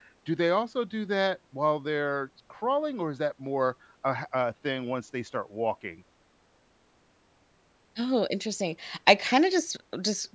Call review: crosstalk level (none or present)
none